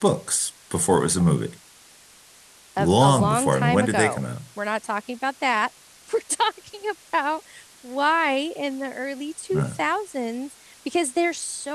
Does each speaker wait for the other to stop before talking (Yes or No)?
No